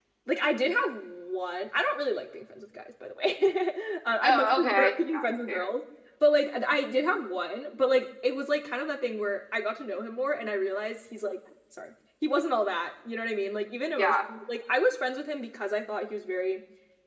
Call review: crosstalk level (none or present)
present